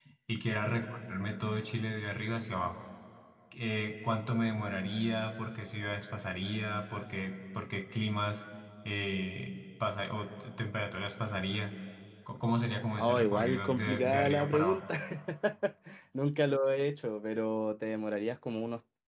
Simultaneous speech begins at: 13 s

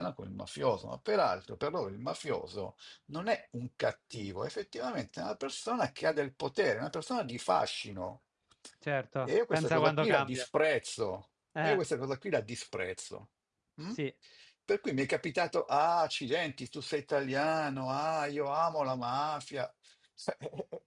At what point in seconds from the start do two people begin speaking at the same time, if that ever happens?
9 s

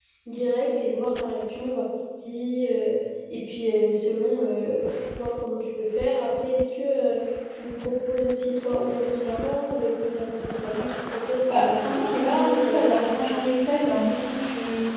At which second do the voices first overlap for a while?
11 s

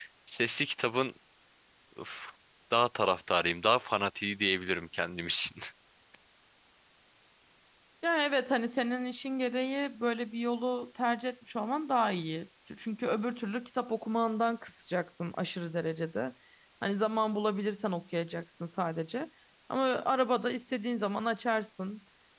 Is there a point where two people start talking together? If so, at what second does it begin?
none

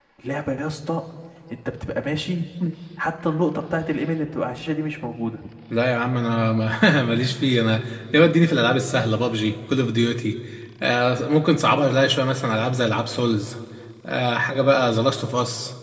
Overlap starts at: none

